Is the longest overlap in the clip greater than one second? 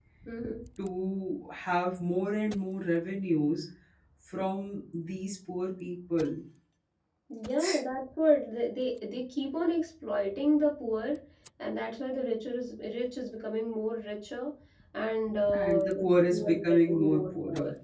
Yes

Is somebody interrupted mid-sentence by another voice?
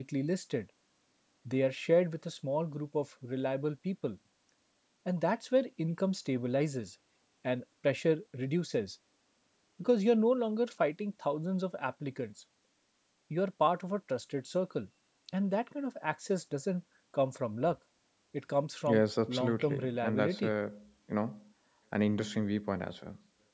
Yes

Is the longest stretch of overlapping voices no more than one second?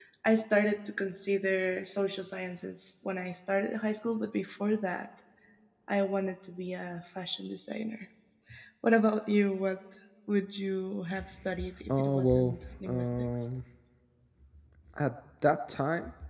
No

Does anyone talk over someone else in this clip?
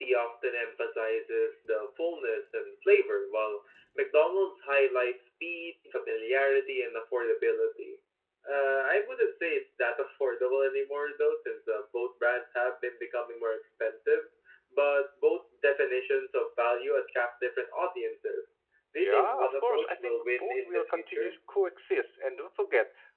Yes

